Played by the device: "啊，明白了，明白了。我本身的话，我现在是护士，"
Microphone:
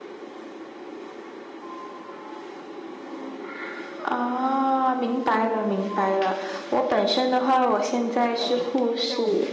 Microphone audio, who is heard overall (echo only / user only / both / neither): both